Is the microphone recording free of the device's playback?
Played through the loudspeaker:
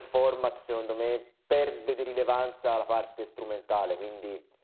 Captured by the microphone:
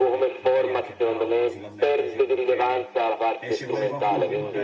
No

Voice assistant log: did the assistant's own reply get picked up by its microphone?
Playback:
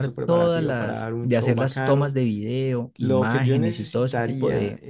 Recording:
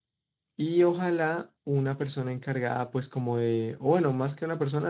No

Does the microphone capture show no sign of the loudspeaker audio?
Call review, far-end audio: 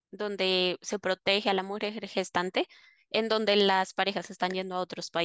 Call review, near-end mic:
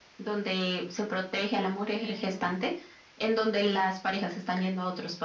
No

